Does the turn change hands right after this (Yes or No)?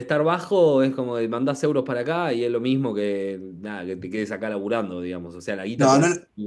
Yes